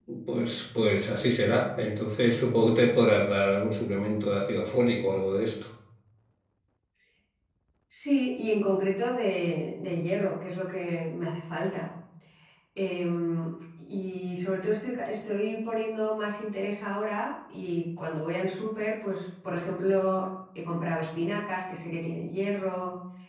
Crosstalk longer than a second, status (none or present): none